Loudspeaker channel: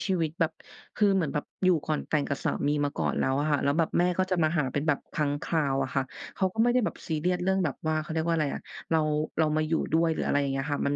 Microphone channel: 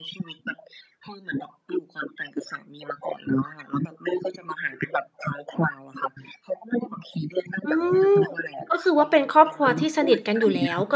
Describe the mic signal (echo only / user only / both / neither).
both